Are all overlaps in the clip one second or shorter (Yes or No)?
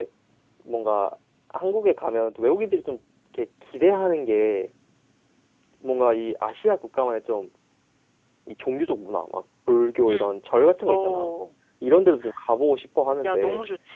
Yes